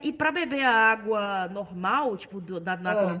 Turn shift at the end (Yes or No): No